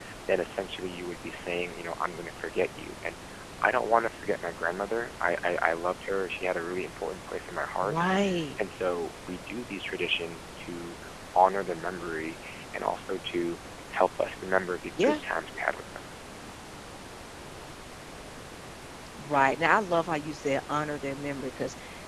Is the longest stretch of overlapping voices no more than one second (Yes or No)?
Yes